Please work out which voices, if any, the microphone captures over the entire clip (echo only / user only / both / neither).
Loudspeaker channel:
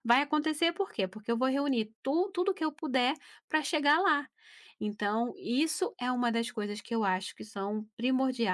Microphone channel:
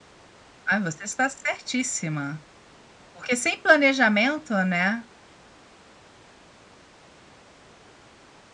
user only